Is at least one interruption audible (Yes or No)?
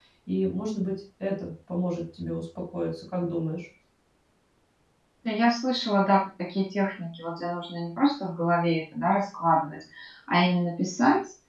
No